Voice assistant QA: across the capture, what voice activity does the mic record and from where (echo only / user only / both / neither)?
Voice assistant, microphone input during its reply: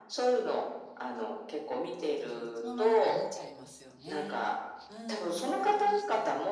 both